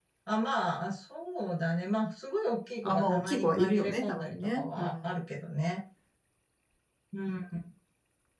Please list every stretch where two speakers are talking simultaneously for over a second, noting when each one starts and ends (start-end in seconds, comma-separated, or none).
2.8-4.9